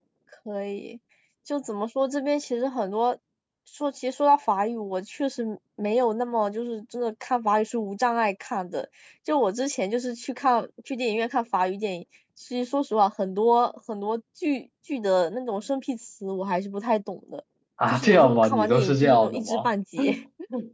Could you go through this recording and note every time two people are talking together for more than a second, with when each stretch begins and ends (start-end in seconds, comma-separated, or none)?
17.9-19.7